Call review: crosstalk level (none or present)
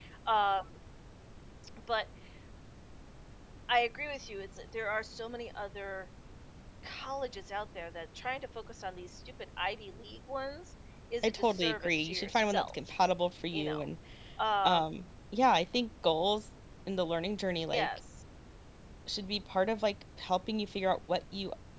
present